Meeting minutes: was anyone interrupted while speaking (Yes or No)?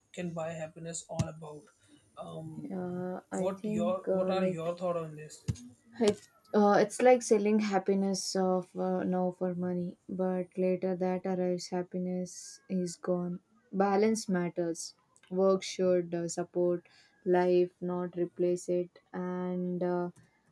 Yes